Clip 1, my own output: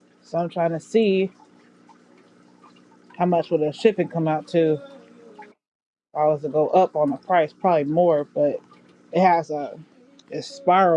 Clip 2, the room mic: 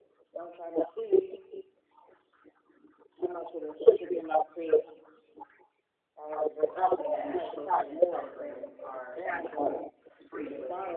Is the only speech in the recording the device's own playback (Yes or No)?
No